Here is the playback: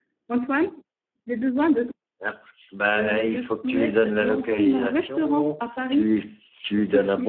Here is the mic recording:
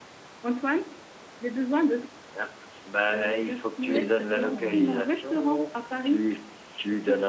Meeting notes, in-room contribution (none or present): present